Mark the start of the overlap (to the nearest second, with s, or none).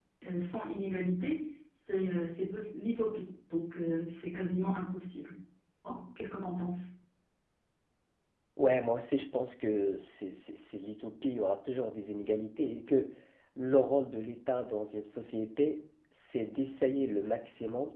none